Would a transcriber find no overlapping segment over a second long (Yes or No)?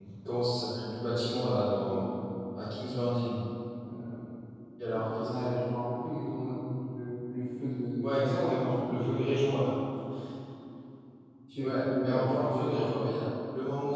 No